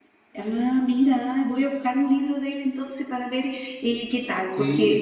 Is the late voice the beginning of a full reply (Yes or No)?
Yes